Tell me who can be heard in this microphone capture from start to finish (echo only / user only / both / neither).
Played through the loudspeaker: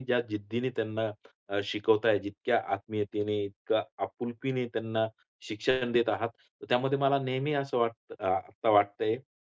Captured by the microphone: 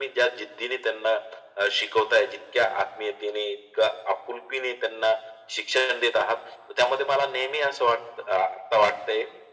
echo only